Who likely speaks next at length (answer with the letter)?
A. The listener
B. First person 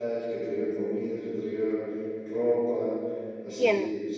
B